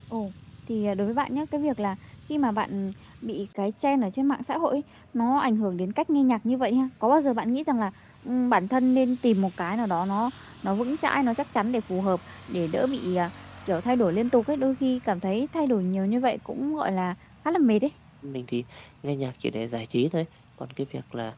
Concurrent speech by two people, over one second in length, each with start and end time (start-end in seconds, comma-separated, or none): none